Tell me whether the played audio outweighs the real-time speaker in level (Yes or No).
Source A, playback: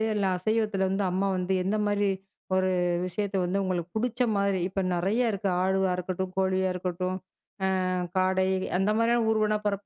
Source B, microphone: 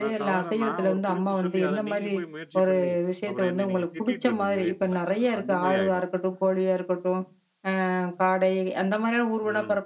Yes